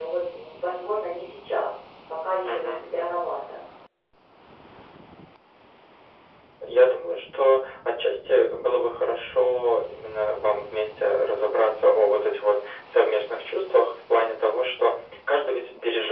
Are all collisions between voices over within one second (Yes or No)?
Yes